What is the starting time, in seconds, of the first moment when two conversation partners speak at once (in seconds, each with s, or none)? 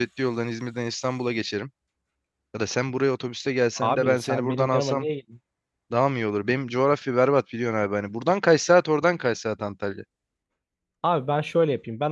3.8 s